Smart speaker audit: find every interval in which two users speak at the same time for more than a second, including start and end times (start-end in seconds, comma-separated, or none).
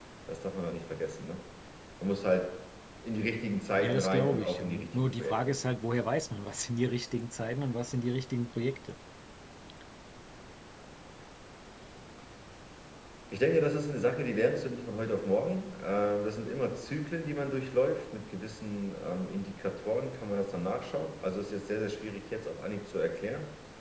3.8-5.3